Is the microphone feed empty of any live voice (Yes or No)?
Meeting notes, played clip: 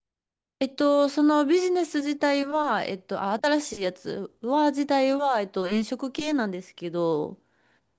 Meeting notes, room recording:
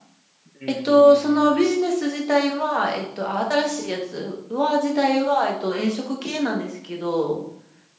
No